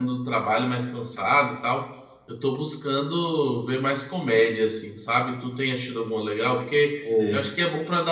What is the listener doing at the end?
listening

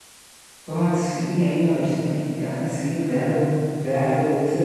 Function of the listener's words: taking over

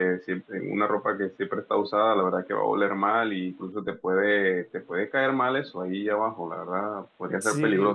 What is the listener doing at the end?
listening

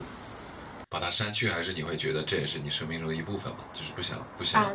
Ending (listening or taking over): taking over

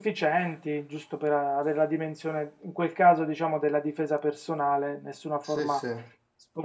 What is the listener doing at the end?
listening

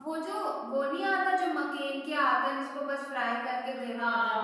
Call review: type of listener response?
taking over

